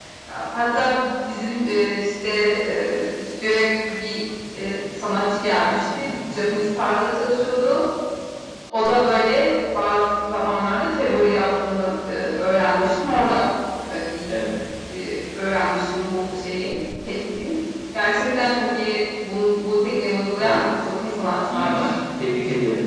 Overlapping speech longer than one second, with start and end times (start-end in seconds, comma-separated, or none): none